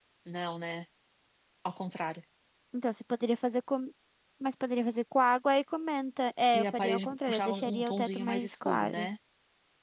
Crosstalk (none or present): present